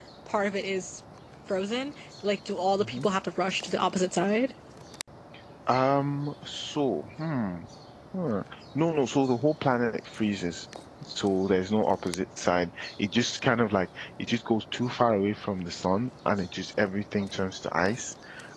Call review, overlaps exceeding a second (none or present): none